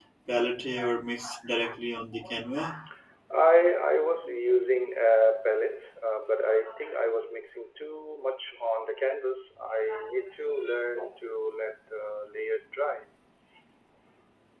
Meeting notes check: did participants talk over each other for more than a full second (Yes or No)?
No